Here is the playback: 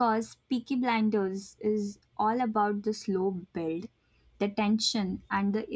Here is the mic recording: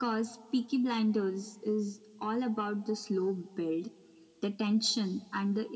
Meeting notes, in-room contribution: none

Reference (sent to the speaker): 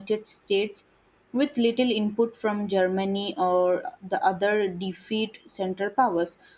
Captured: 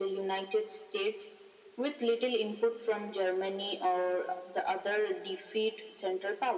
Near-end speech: none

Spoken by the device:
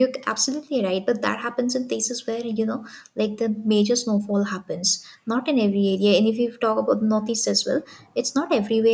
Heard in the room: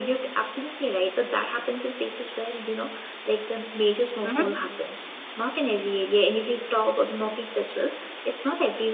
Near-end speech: present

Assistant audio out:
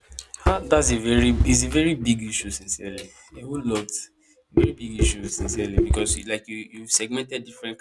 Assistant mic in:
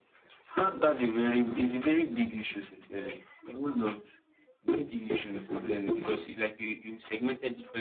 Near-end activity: none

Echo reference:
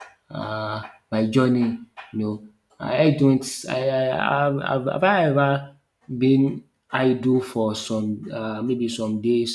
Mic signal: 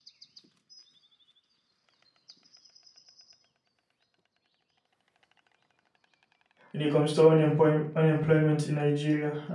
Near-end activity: present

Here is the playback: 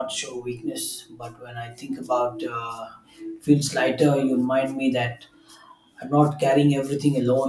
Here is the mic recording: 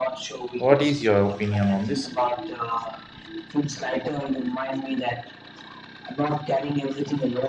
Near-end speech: present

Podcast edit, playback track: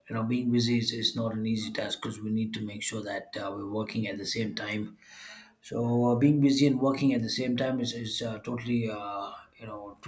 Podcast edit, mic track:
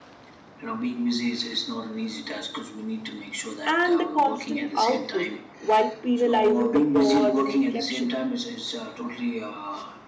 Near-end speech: present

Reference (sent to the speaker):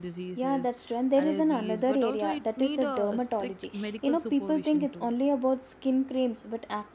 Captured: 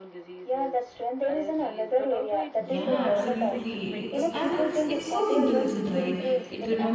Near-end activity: present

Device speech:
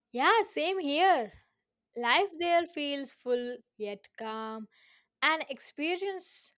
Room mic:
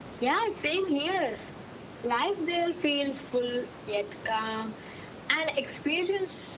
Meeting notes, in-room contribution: none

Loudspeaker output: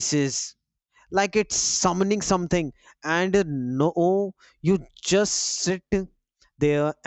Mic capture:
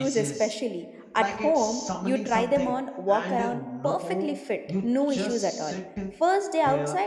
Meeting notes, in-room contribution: present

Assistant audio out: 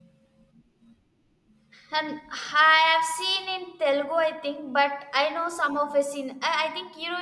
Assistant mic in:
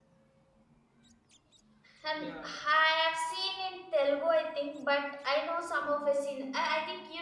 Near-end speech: present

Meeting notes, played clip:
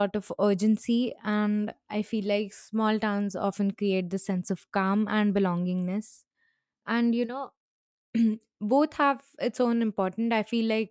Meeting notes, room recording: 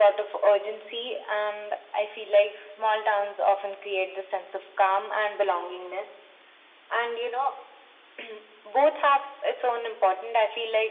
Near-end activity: none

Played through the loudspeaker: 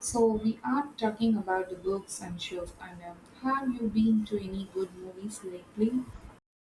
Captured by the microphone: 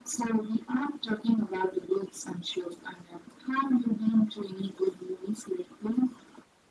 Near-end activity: none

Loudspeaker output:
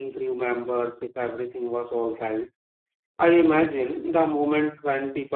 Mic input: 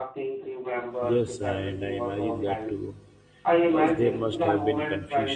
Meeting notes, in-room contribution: present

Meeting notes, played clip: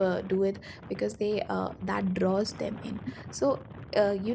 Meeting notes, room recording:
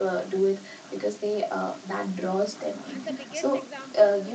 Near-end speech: present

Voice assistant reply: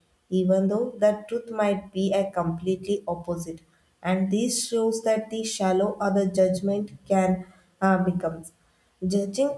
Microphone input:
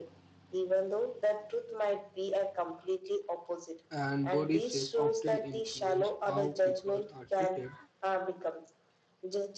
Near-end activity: present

